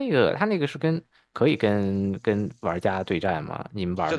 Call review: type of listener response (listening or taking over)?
taking over